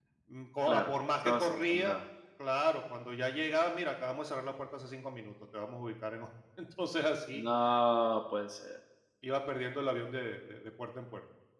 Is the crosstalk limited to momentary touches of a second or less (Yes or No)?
No